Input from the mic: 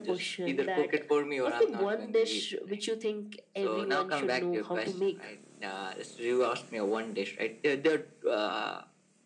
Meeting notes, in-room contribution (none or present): none